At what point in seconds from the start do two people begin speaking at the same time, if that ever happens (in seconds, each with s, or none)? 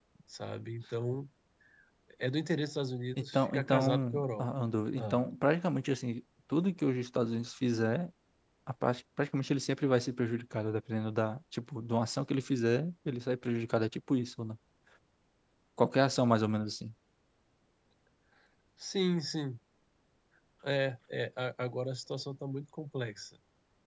3.2 s